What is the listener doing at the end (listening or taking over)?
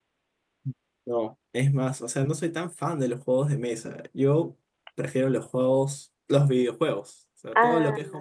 listening